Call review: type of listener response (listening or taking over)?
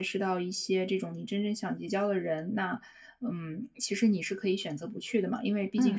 listening